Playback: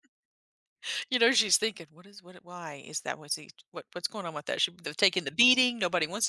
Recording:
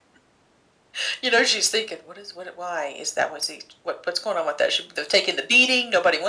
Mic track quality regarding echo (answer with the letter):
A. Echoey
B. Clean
A